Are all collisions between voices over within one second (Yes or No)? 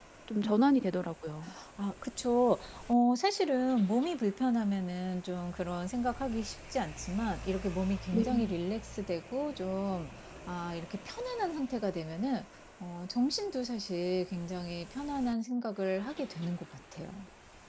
Yes